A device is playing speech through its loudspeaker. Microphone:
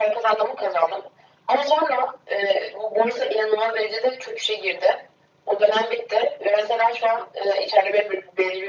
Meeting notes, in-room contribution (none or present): none